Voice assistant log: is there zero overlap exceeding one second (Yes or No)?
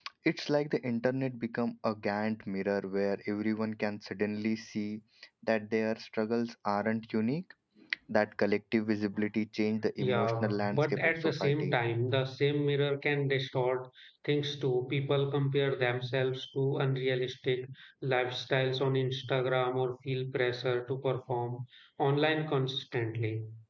No